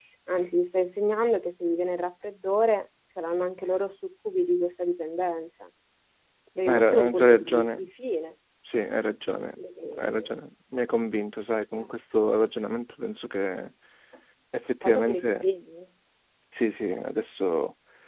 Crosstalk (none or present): present